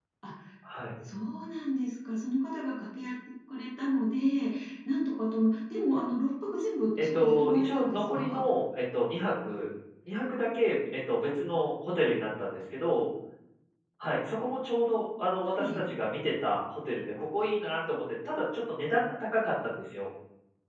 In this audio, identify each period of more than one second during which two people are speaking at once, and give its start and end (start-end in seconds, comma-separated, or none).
7.0-8.4